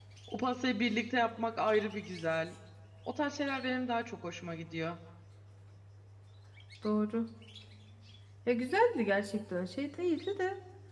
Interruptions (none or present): none